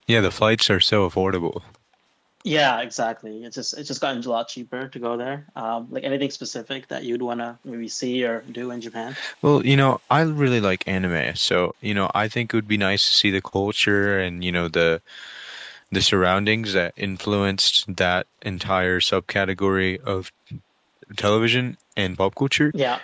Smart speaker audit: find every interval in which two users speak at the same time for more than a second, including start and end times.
none

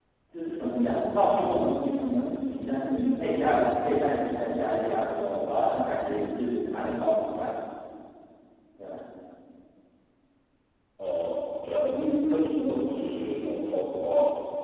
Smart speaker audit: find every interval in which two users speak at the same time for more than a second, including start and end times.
none

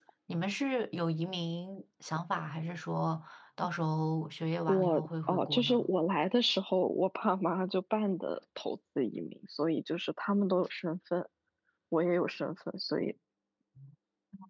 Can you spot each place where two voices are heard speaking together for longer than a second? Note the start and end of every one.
4.7-5.9

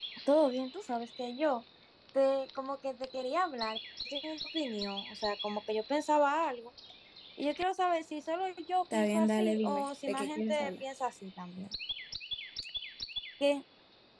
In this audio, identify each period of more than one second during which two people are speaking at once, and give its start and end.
8.9-10.7

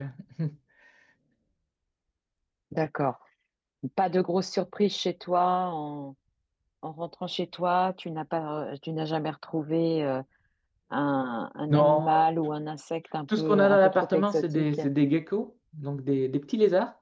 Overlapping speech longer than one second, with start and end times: 13.3-14.8

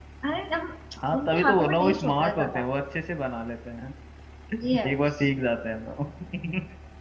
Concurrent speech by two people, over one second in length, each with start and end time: 1.3-2.6

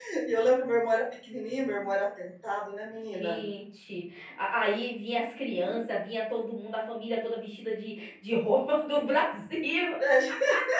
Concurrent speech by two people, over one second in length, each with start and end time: none

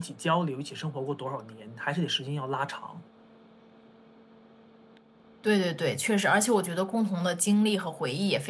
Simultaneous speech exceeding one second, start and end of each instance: none

